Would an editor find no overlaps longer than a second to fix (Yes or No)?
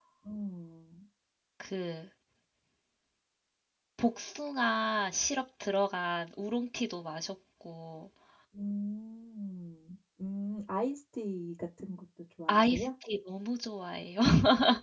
Yes